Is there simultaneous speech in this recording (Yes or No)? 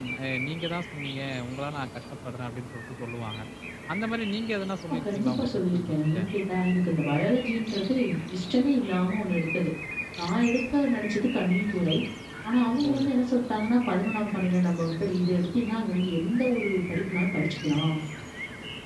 Yes